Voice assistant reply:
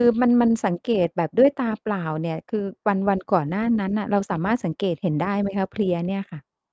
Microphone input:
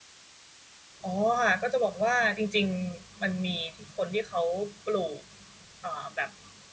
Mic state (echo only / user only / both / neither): user only